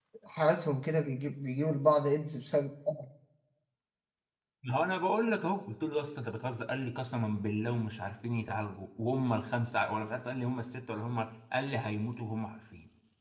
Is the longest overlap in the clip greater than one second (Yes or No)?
No